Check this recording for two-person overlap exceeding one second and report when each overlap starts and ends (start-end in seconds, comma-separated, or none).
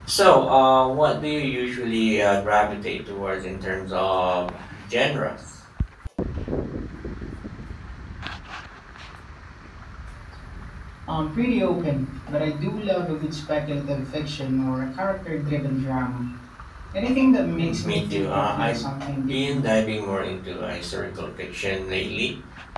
17.5-18.8